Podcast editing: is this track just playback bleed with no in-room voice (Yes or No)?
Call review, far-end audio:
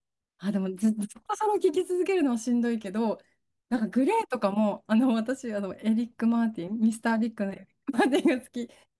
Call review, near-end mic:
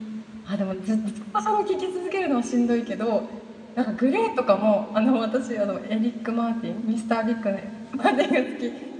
Yes